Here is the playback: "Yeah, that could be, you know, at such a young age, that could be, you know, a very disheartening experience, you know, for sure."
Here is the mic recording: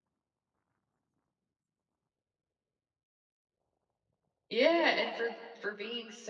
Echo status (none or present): none